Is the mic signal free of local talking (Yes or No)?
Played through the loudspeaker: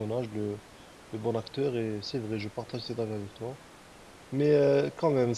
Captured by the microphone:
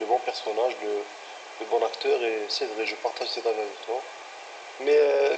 Yes